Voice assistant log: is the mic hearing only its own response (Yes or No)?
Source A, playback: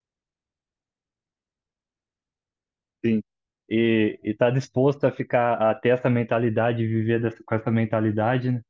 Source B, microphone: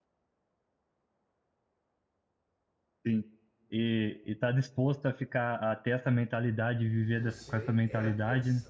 No